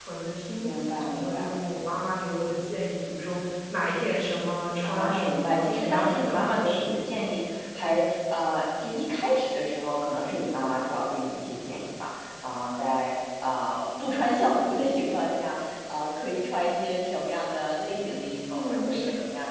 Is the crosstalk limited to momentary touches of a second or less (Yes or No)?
No